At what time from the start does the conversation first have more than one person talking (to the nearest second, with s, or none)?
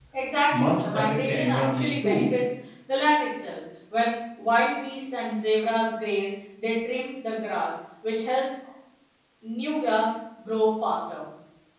1 s